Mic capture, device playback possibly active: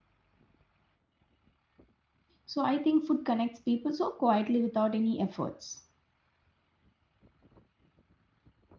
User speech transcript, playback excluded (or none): so i think food connects people so quietly without any efforts